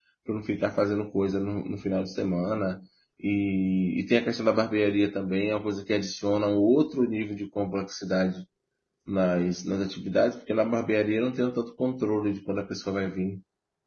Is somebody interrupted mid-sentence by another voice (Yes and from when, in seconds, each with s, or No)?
No